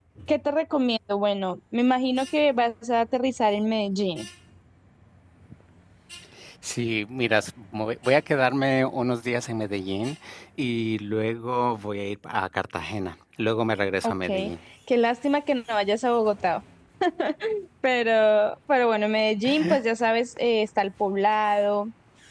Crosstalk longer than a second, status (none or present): none